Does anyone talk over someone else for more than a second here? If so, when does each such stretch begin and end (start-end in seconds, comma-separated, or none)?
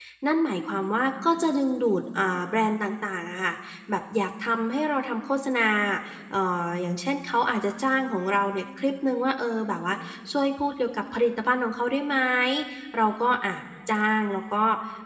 none